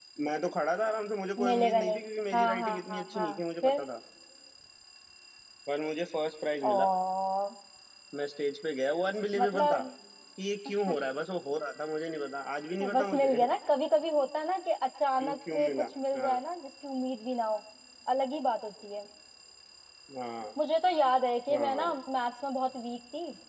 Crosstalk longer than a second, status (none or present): present